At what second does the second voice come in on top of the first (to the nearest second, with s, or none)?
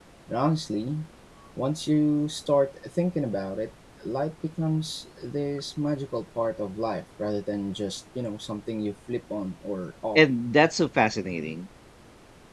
none